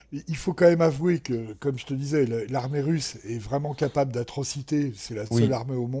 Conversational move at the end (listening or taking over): listening